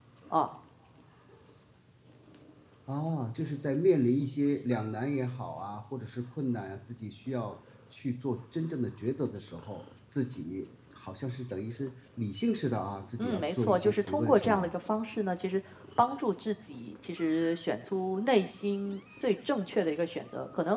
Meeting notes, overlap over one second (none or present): present